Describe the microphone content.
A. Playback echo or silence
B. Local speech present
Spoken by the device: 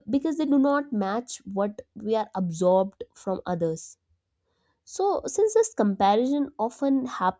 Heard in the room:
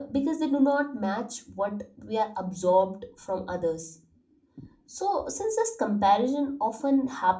A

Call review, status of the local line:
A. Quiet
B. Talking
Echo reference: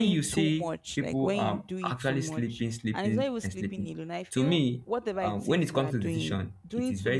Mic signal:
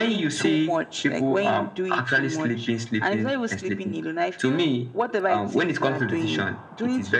A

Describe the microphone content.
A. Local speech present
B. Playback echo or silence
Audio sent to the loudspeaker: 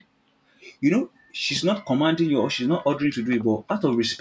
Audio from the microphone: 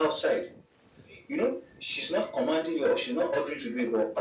B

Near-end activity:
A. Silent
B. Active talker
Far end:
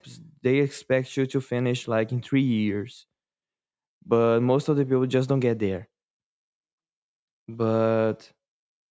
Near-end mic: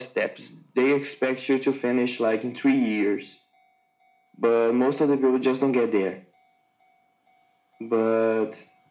A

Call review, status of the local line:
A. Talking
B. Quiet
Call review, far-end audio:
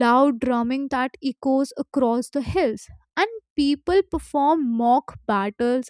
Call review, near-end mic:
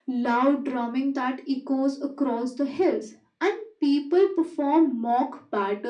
B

